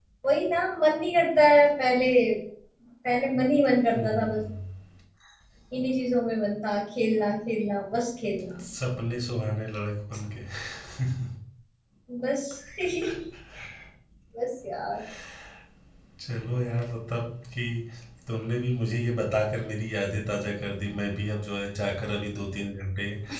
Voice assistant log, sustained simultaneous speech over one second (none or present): none